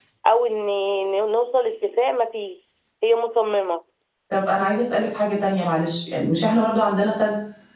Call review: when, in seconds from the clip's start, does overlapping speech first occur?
none

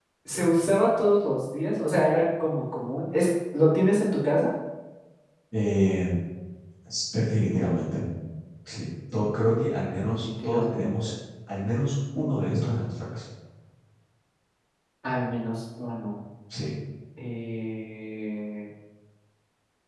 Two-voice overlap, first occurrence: 9.9 s

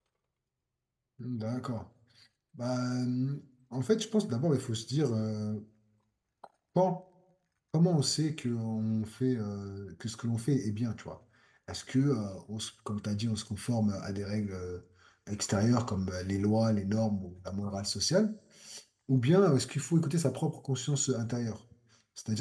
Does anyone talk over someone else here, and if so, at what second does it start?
none

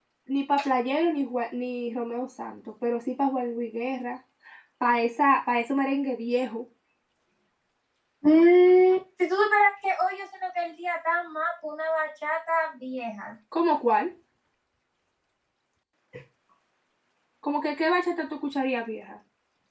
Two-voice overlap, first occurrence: none

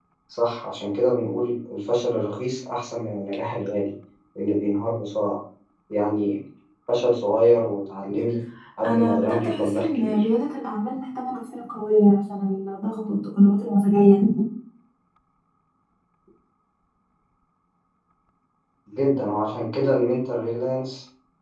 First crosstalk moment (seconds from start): 8.8 s

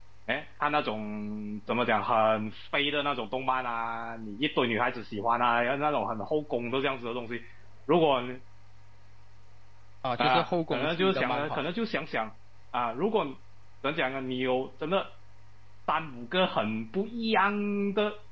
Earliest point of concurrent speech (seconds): 10.2 s

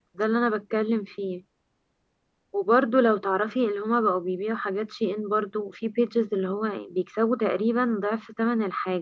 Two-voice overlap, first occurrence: none

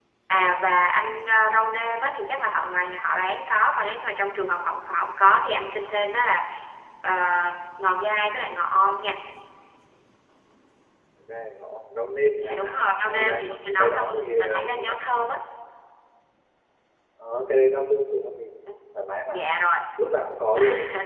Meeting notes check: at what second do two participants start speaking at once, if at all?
12.4 s

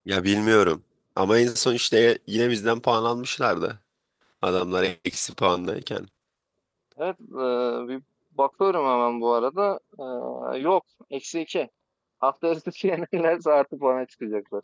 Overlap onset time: none

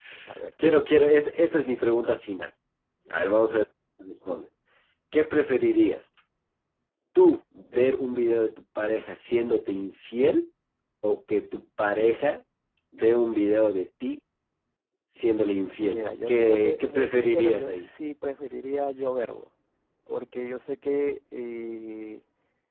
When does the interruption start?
15.9 s

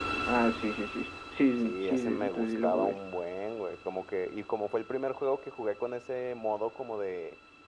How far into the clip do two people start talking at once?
1.6 s

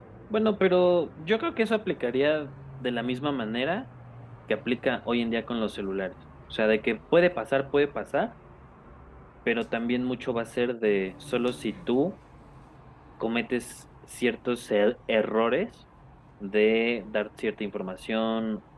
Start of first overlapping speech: none

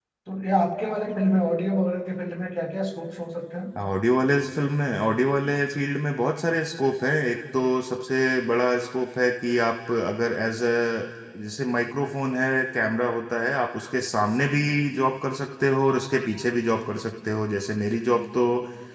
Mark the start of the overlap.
none

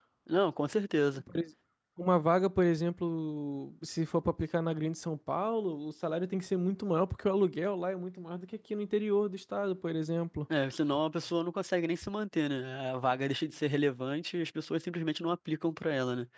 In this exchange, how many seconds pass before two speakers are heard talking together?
none

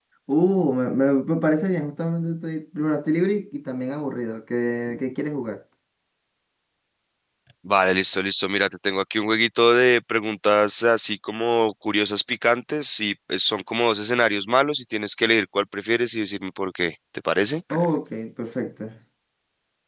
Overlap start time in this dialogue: none

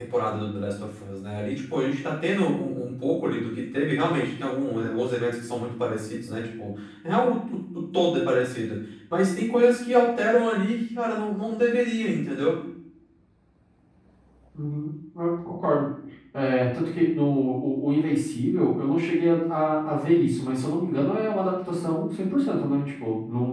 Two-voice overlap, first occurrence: none

